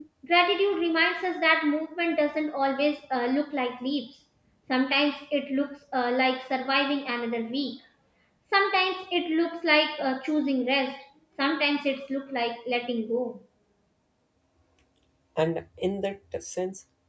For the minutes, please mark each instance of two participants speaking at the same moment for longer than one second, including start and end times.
none

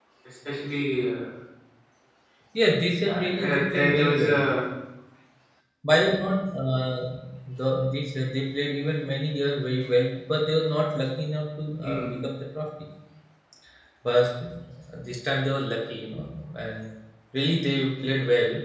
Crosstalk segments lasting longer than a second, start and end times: 3.0-4.4

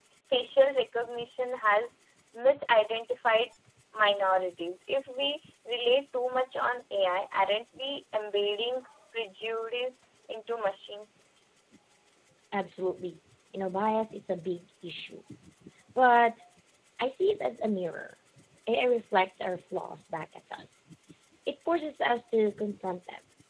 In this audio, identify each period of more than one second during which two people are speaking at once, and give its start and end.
none

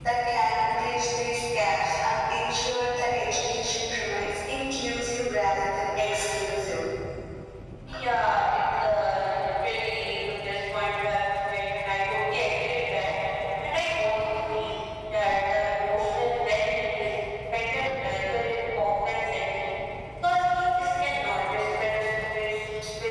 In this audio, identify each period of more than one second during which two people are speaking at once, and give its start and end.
none

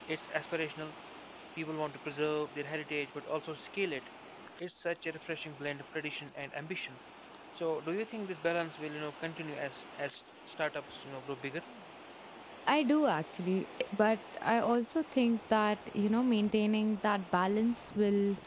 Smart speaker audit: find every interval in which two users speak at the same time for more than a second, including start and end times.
none

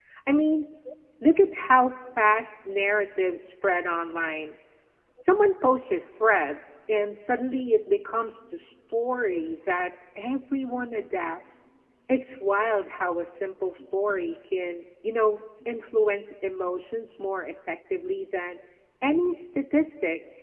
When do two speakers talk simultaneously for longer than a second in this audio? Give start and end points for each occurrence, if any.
none

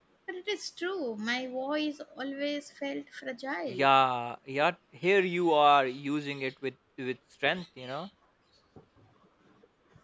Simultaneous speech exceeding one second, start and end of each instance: none

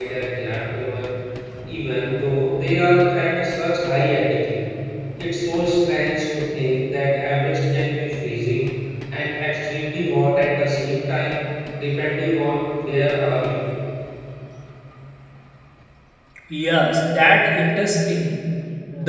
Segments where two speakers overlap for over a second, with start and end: none

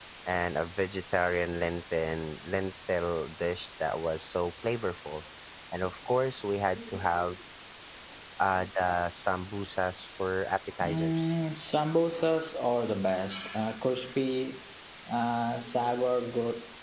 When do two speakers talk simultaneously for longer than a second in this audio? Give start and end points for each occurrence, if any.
none

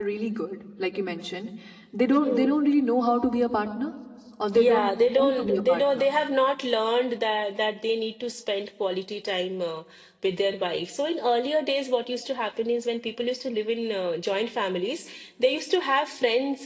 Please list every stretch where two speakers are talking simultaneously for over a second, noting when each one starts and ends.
4.6-6.0

